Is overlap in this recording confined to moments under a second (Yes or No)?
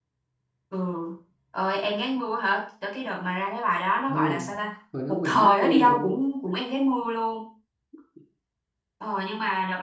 No